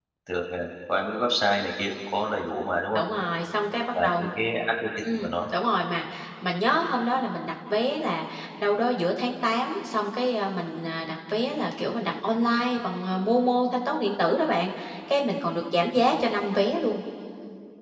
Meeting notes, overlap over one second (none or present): none